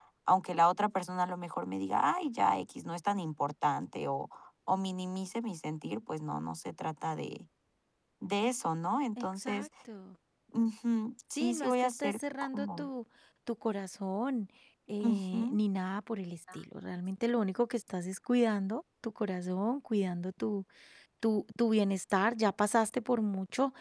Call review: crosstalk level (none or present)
present